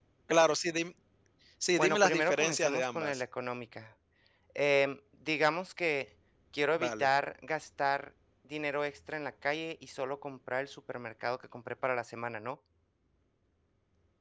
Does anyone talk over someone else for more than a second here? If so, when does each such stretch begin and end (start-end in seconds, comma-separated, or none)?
1.7-3.2